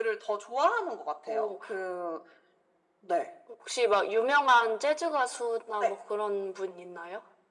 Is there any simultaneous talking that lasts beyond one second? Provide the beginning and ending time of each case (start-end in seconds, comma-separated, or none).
none